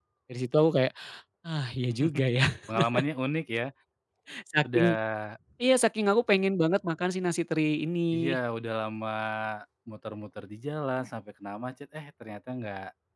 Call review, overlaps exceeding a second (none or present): none